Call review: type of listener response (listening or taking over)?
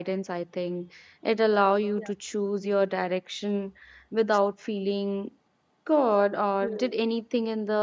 listening